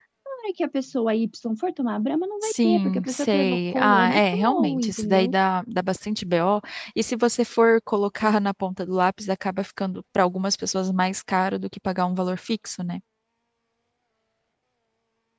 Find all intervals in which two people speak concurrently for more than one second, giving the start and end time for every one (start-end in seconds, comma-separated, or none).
2.4-5.3